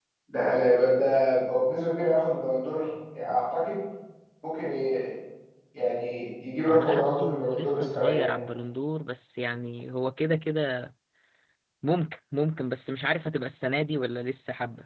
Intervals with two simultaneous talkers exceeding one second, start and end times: 6.7-8.4

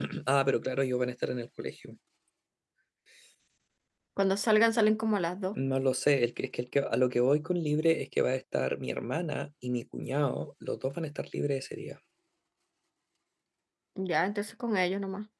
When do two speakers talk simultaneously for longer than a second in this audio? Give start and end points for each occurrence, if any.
none

